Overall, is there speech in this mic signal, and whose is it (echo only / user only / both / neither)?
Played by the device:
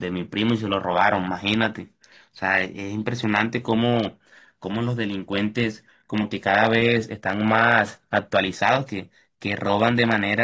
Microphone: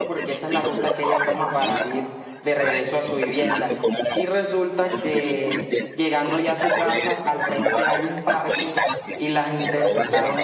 both